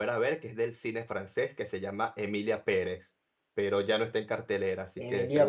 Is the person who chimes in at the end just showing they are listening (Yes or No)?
No